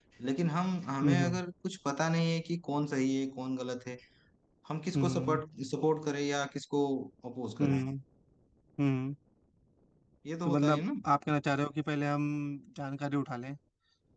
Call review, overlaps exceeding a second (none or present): none